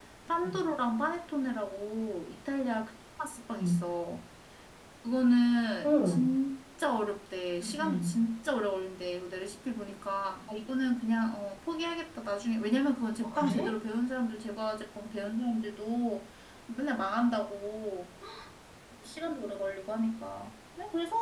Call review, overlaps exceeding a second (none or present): none